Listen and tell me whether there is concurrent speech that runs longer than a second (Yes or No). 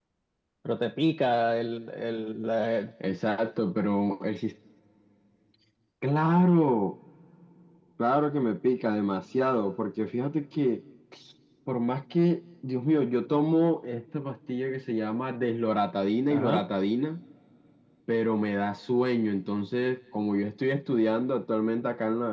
No